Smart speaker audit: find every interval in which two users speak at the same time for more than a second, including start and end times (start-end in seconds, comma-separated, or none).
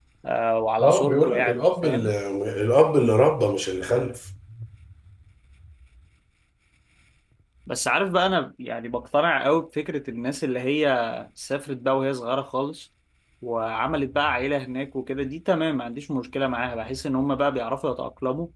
0.8-2.1